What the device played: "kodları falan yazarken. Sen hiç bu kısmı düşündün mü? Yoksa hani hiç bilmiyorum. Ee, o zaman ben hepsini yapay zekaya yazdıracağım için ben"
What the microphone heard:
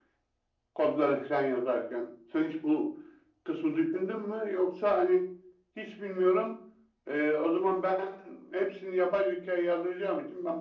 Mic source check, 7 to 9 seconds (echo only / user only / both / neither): echo only